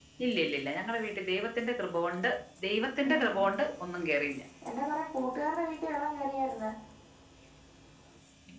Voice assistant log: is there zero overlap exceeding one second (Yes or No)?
Yes